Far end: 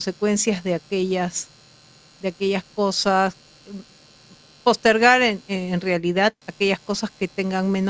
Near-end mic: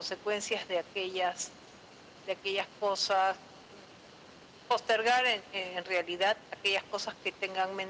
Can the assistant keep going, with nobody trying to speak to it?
Yes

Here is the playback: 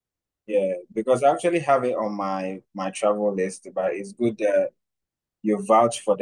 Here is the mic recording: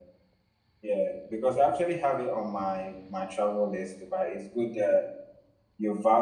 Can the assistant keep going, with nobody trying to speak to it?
Yes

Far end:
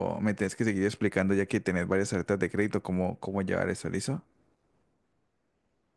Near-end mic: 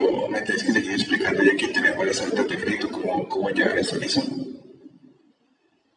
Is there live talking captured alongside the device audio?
No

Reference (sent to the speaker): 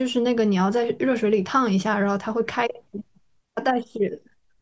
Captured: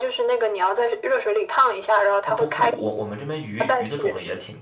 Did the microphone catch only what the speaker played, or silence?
No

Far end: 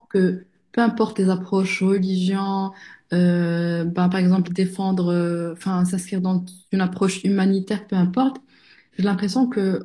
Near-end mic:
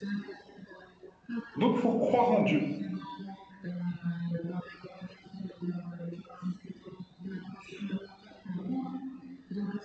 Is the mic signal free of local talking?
No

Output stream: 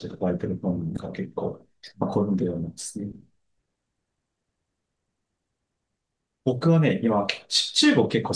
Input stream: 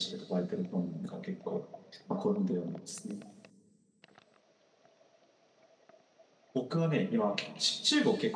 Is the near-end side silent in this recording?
Yes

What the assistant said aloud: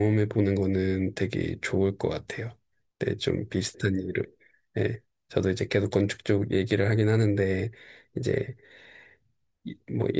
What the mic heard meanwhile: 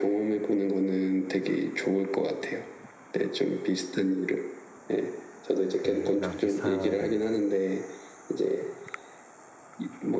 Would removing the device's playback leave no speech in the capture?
No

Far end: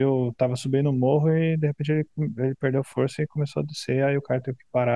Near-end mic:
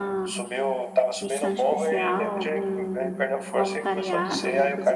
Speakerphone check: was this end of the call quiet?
No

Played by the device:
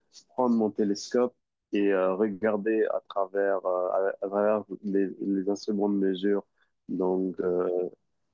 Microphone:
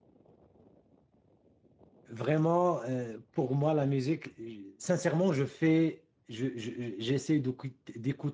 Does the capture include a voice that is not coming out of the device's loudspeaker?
Yes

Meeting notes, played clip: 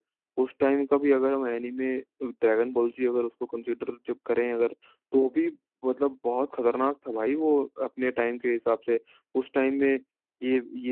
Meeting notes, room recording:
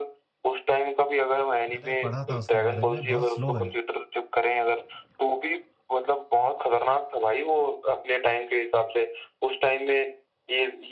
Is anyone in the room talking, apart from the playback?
Yes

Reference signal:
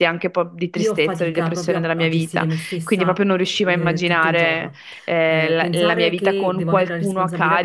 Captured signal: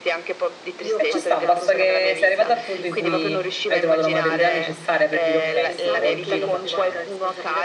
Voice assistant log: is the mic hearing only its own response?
No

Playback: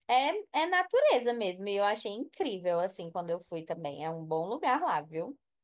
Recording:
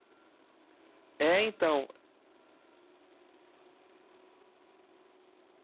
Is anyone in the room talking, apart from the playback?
Yes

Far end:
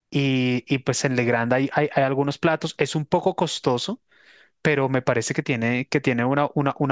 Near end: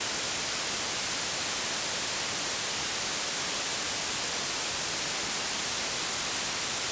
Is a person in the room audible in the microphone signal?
No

